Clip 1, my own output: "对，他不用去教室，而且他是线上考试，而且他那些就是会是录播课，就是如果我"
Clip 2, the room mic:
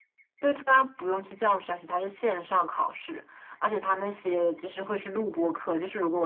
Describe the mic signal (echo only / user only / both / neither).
echo only